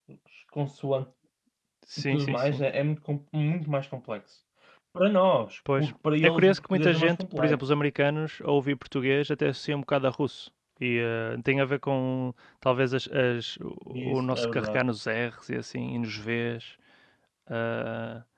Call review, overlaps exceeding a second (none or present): present